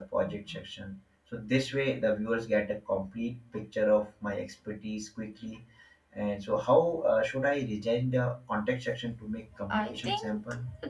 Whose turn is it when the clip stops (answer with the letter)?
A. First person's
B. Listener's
B